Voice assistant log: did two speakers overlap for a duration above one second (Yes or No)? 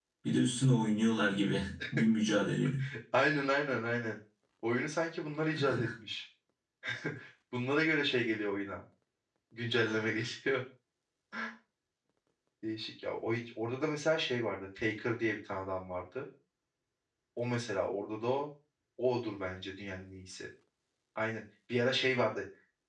No